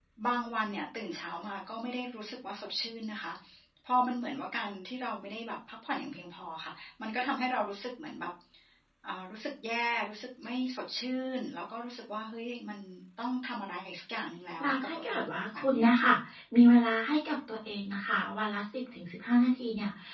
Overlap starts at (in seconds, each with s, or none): 14.6 s